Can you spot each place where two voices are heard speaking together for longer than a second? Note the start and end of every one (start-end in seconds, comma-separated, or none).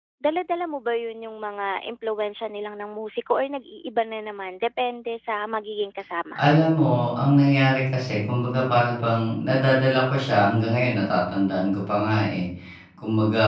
none